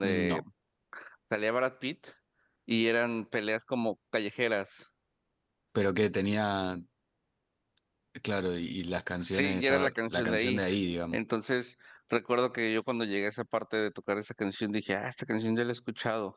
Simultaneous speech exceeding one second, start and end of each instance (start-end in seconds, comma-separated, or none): 9.3-10.6